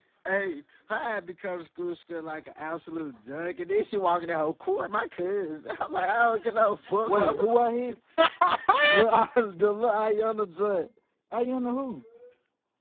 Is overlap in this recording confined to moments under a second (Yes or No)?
Yes